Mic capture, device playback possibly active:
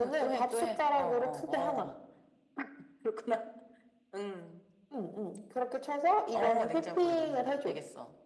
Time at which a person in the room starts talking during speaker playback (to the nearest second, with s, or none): none